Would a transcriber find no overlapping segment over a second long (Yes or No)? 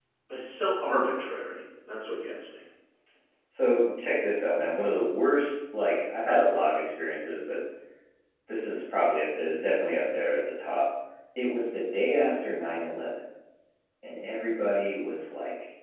Yes